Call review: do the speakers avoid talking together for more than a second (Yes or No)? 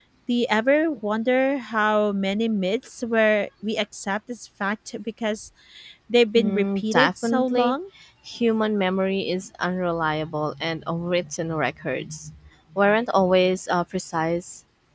No